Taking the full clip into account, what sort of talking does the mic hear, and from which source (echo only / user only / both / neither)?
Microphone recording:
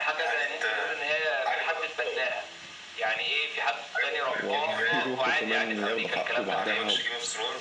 both